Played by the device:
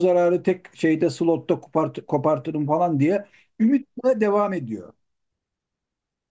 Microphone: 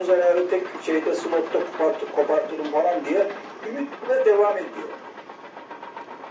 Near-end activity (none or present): none